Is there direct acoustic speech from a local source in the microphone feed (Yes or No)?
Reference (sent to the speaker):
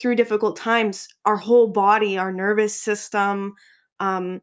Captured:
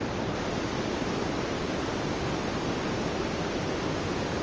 No